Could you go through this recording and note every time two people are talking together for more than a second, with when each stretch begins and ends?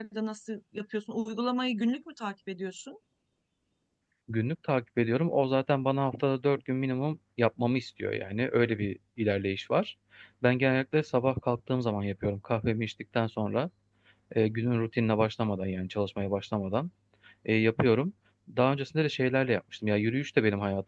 none

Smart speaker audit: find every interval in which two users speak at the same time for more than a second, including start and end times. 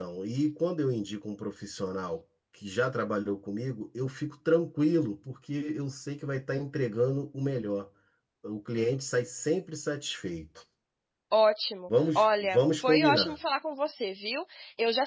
12.2-13.4

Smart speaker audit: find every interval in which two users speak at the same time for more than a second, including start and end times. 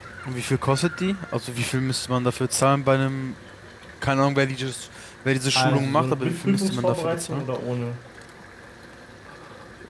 5.5-7.4

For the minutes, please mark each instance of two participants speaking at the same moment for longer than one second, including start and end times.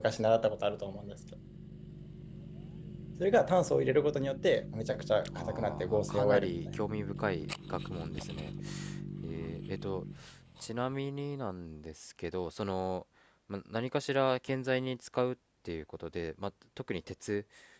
5.4-6.8

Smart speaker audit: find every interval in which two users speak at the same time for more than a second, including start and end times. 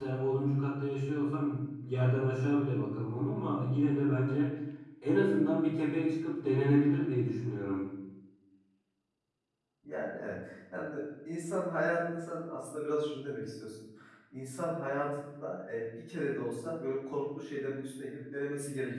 none

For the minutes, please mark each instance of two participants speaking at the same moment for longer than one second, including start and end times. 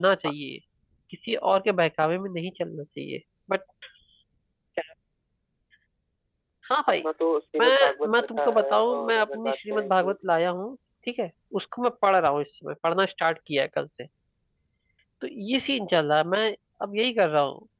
7.6-10.2

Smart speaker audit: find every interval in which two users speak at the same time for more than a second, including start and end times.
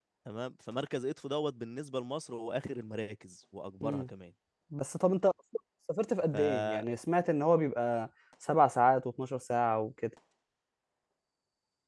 none

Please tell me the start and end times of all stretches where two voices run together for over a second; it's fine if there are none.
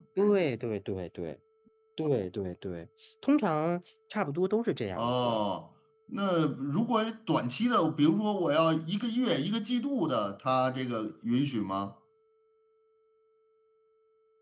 none

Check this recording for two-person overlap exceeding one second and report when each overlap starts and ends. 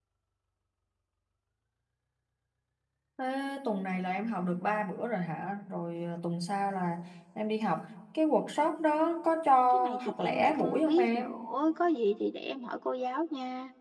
9.7-11.3

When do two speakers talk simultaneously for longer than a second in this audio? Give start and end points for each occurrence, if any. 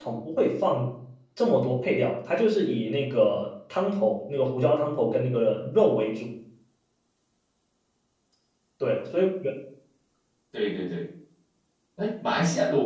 none

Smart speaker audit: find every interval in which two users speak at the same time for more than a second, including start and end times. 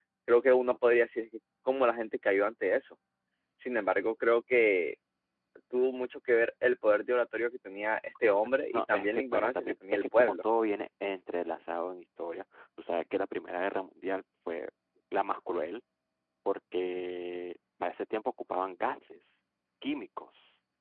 8.2-10.3

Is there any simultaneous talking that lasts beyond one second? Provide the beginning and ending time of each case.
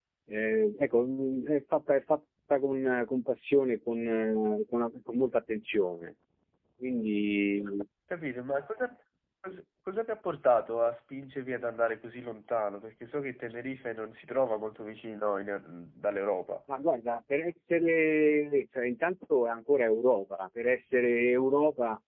none

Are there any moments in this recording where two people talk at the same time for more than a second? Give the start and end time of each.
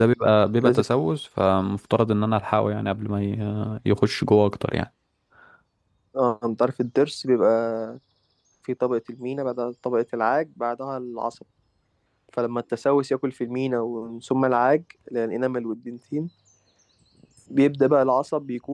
none

